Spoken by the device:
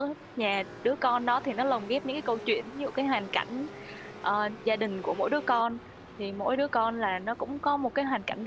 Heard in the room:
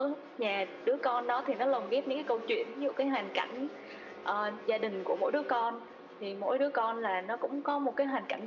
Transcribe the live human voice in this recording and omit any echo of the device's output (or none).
none